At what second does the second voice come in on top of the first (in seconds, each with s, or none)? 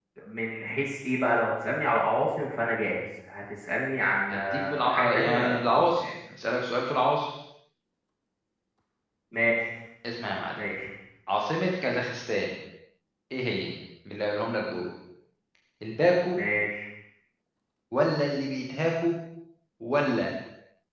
4.3 s